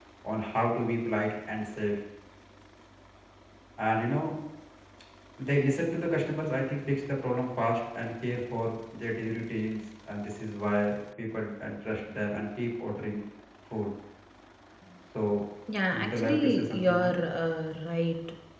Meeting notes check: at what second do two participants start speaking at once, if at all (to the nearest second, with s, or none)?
16 s